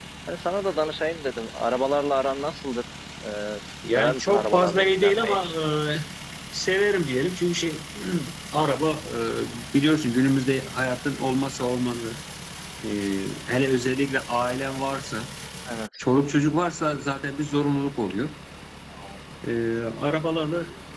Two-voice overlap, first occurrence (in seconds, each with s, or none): 3.8 s